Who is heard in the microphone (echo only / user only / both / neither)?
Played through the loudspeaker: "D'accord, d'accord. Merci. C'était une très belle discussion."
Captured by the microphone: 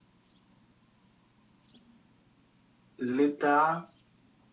user only